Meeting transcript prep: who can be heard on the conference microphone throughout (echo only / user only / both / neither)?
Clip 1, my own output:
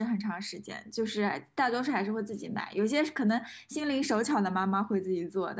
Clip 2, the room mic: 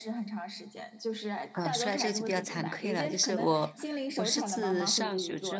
both